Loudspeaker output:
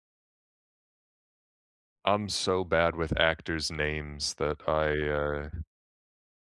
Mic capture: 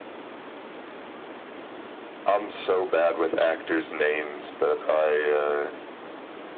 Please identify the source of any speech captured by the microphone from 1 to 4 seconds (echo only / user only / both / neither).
echo only